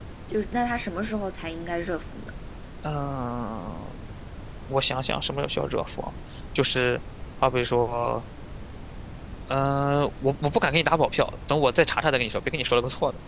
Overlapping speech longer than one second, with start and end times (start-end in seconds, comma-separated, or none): none